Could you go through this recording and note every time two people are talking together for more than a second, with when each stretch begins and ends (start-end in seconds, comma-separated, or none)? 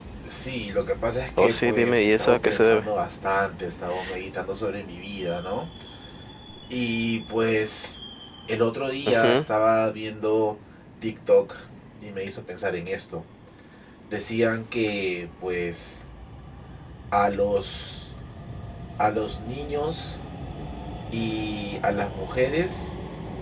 1.4-2.9